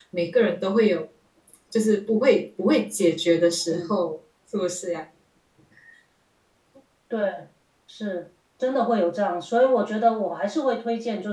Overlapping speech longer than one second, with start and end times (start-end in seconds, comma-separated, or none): none